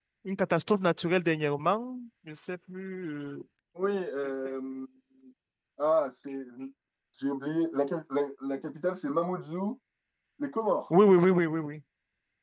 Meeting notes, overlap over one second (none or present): none